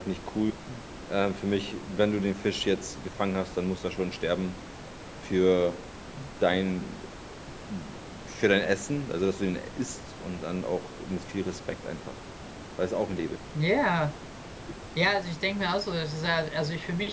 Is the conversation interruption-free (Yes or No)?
Yes